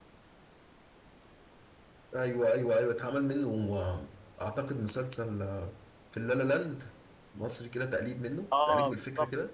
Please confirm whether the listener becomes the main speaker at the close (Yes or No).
Yes